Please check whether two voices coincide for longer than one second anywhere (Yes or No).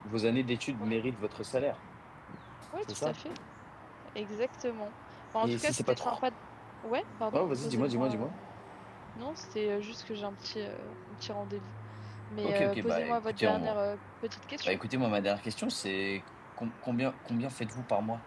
Yes